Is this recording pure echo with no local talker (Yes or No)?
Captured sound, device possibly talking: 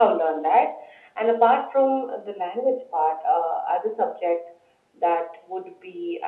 Yes